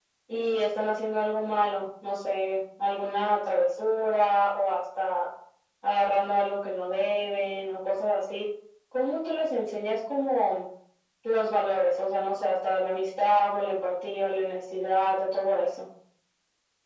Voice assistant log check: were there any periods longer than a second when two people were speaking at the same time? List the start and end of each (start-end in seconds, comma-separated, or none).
none